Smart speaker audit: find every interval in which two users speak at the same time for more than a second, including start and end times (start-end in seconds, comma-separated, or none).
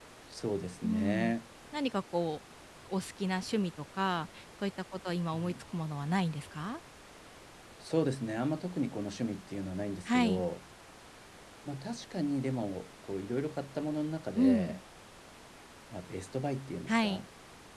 none